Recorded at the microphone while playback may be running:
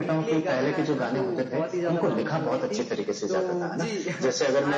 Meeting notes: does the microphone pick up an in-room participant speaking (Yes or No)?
No